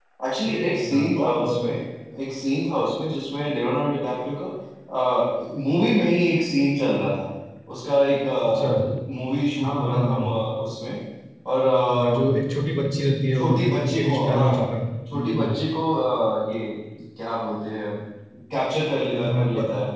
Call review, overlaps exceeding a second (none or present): present